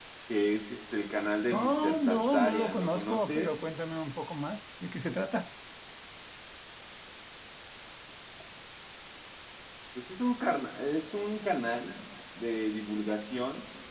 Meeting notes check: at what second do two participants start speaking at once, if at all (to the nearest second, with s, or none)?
2 s